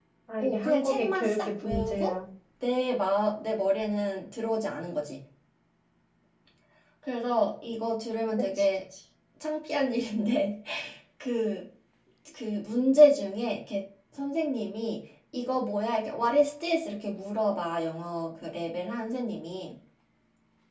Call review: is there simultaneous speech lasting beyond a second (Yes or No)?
Yes